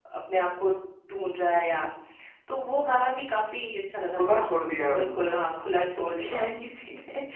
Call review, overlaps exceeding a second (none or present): present